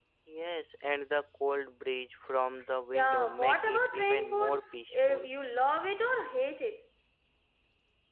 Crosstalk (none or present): present